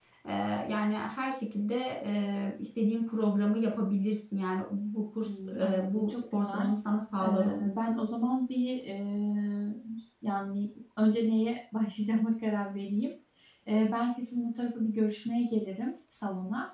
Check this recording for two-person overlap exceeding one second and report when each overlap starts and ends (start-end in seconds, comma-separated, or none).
5.2-6.7